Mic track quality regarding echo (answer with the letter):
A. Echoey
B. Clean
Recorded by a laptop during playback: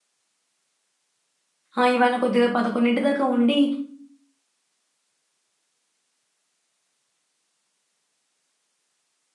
B